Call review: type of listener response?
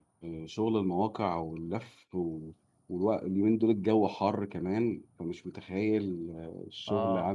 listening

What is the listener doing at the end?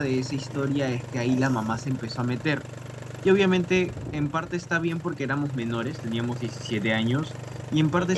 listening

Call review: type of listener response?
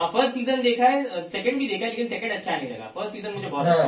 taking over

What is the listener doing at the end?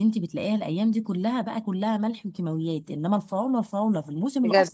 listening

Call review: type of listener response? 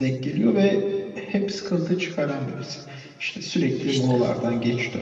listening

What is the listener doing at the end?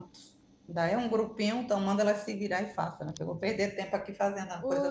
taking over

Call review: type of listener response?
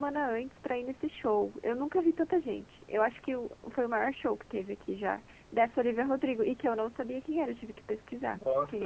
taking over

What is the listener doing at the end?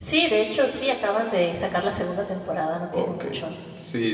taking over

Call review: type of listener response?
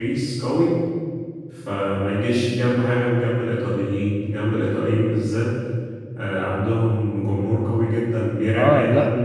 taking over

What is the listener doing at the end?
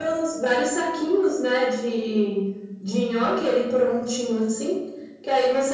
listening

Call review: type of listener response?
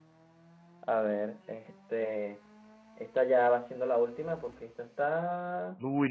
taking over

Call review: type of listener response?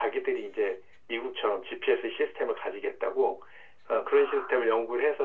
listening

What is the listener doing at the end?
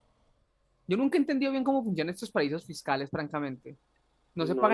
taking over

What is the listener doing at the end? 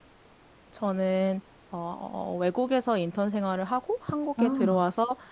listening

